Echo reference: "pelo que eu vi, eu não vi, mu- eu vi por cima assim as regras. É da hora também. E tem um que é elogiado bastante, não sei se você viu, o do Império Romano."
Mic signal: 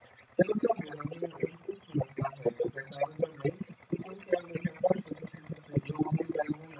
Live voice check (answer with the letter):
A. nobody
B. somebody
A